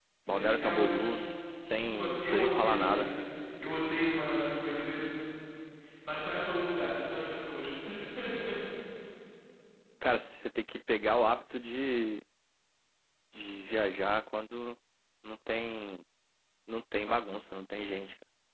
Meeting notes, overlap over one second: present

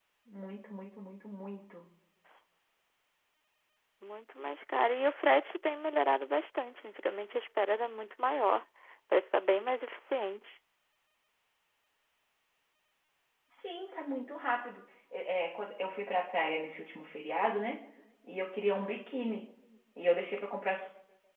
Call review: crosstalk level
none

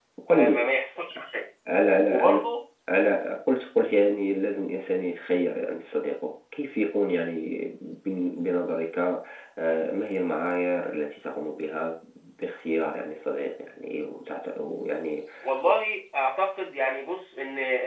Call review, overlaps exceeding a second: none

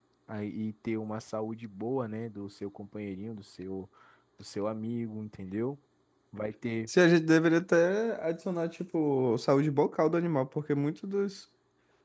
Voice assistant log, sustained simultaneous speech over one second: none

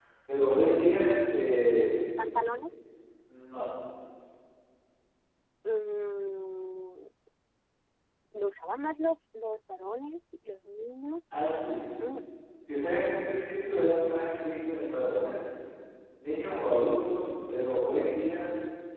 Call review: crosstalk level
none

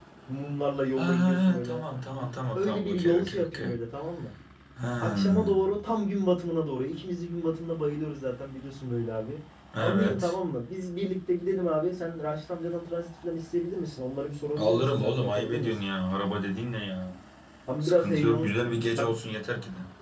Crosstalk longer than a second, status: present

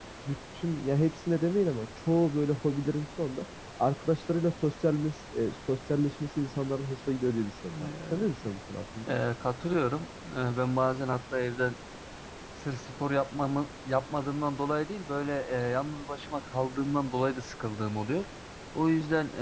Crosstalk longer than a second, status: none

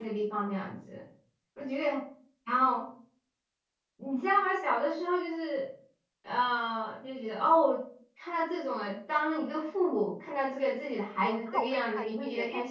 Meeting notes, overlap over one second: present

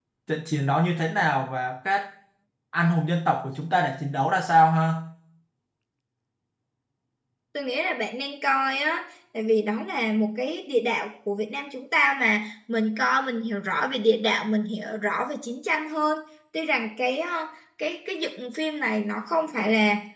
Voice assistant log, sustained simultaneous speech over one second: none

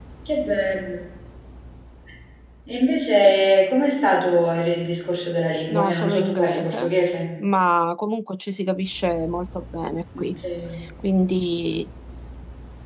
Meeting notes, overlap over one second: present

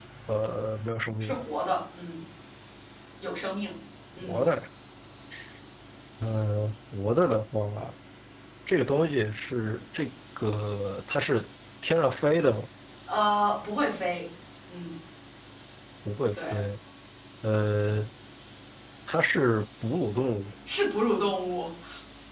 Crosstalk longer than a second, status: none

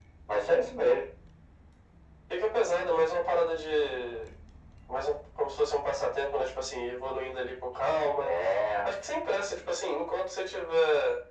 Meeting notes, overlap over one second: none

